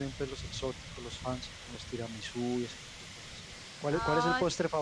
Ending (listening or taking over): listening